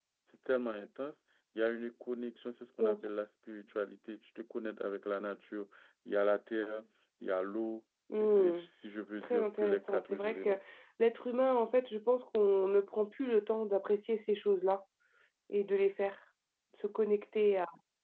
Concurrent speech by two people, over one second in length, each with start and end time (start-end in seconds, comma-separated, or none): 9.2-10.5